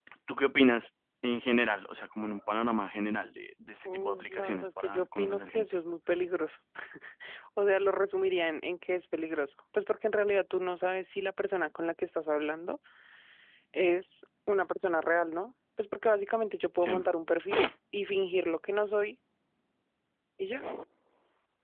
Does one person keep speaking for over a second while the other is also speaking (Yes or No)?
Yes